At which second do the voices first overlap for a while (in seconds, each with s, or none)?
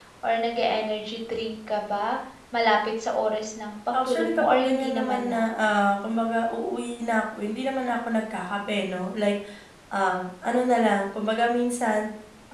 3.9 s